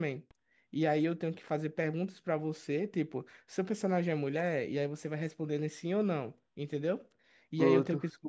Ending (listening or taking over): listening